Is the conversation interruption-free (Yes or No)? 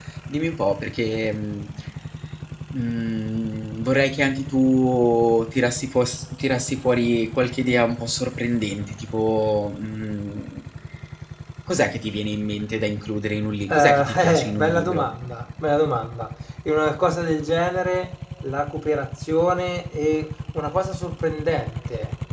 No